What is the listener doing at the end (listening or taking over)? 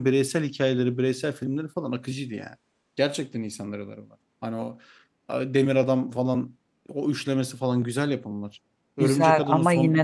taking over